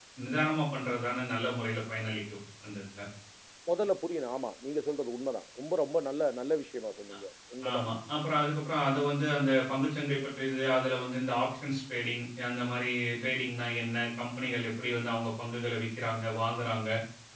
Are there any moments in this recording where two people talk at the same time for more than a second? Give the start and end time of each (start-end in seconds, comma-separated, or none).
none